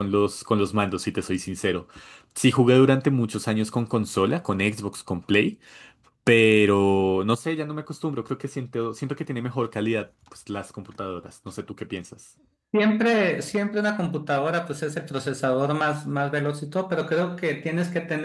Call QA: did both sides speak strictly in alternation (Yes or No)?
Yes